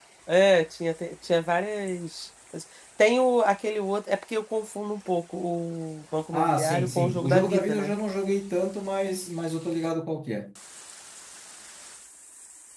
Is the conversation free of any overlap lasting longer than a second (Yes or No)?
No